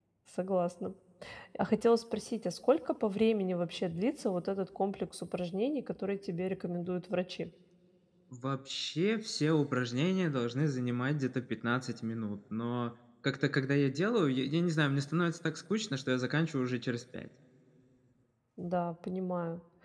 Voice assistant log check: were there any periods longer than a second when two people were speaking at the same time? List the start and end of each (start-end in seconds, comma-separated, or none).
none